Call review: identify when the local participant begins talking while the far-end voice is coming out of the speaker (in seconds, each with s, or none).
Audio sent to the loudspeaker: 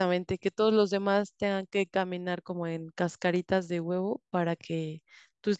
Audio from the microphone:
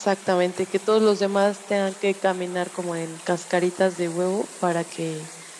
none